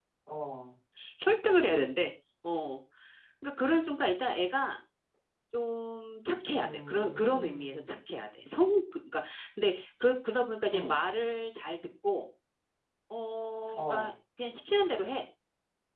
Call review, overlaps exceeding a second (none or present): present